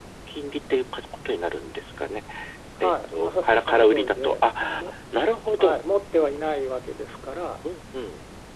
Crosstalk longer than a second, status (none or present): present